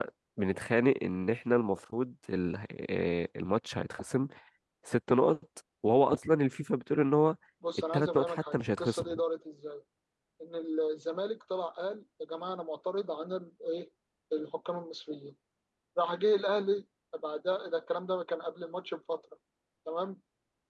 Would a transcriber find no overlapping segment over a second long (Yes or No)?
No